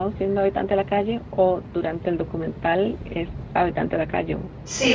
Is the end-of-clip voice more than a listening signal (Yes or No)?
Yes